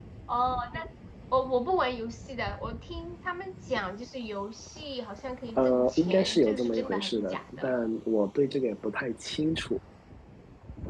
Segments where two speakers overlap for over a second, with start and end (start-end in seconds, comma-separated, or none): 5.6-7.7